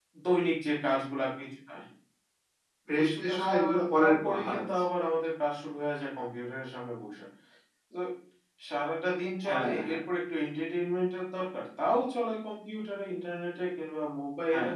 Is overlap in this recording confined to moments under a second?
No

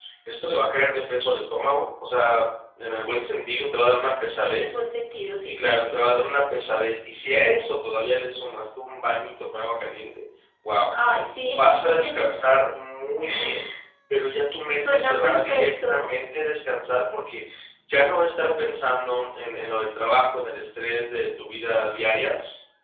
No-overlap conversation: No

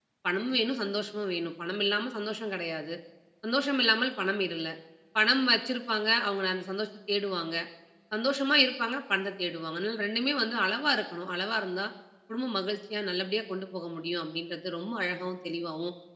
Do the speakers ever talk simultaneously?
No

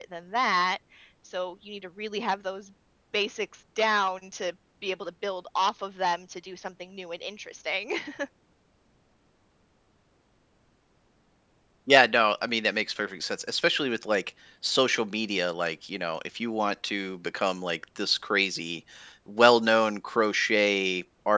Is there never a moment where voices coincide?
Yes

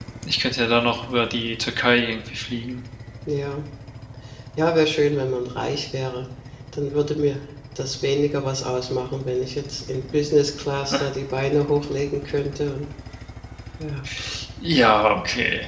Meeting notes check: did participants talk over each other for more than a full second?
No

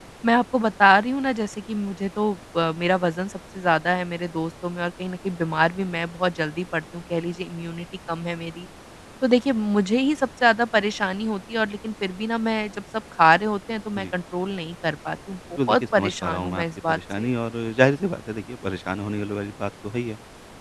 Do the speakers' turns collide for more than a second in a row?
Yes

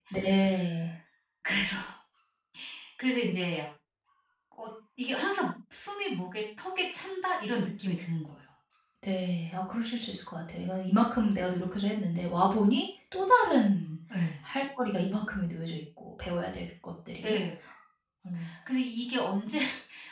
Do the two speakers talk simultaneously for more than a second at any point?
No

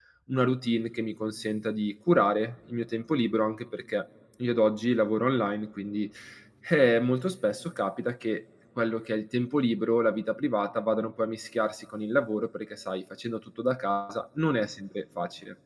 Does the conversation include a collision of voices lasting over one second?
No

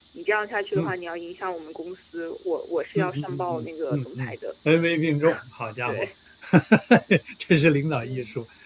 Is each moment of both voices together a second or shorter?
No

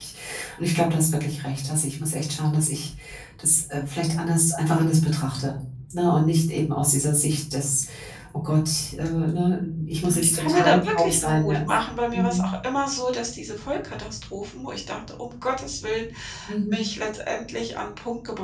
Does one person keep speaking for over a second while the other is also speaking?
Yes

